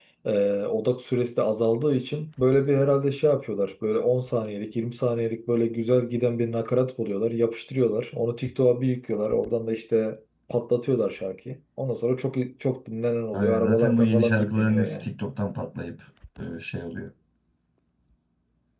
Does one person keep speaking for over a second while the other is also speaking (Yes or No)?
Yes